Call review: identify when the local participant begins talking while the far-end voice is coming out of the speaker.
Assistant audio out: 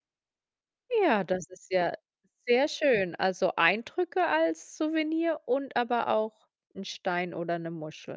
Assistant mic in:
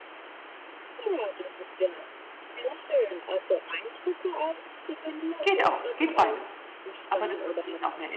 5.4 s

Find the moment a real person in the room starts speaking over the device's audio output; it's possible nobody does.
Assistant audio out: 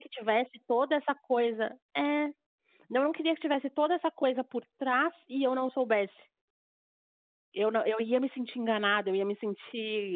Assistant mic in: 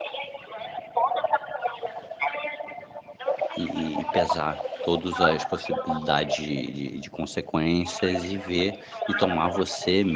3.6 s

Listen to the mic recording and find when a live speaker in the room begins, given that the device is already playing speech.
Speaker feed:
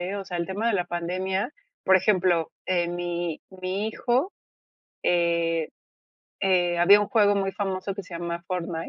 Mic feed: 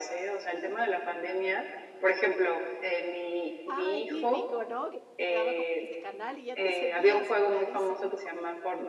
3.7 s

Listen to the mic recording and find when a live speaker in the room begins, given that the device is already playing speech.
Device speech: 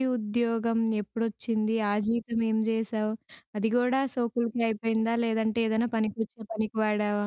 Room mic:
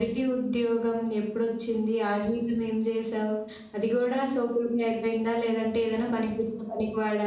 none

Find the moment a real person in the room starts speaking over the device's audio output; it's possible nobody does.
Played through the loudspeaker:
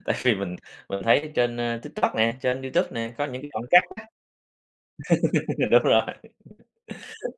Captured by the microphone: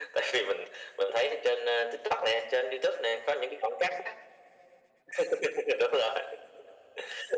none

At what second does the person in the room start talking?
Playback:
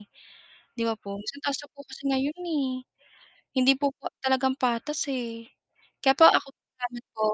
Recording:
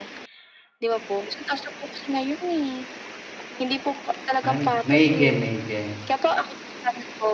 4.4 s

